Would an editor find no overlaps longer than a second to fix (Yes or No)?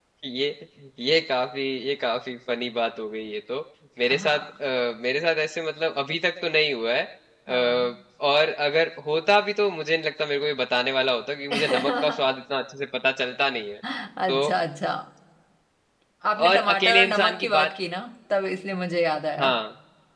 No